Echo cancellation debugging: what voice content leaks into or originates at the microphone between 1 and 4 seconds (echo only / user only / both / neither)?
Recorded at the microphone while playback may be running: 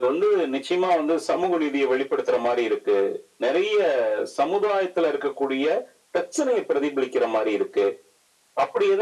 echo only